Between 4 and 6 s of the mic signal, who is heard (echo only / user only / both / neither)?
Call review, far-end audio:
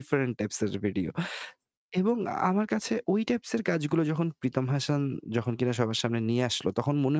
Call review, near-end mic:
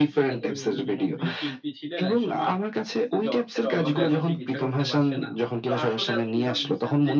both